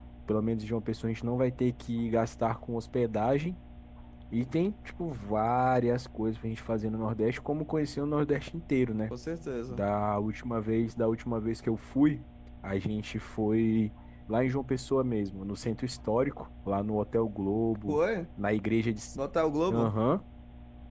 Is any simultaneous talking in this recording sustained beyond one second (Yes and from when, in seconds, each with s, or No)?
No